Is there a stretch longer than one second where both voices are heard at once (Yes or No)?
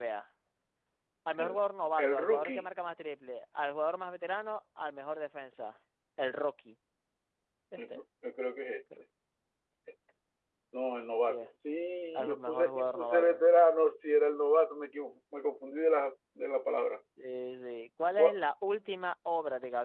Yes